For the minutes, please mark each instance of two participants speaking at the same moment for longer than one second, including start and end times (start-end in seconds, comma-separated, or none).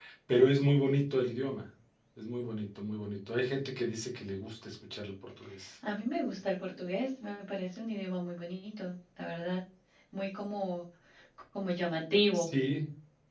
none